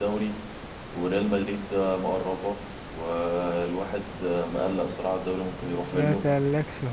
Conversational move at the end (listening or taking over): taking over